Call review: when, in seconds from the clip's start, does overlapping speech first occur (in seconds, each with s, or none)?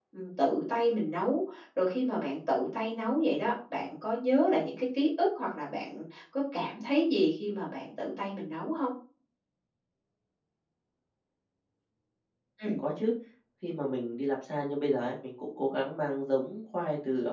none